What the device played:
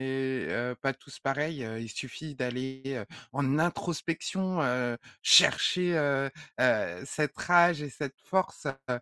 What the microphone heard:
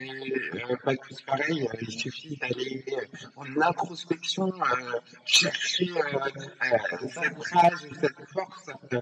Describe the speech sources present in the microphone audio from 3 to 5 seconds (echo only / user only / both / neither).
echo only